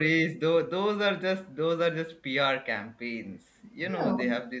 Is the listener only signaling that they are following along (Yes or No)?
Yes